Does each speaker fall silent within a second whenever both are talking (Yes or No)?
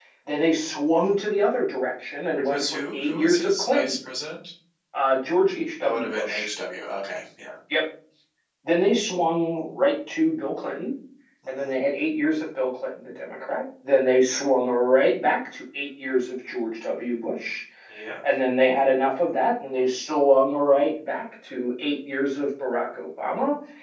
No